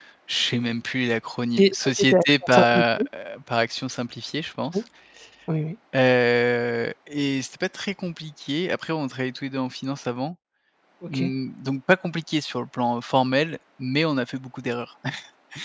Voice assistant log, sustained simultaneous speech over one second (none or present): present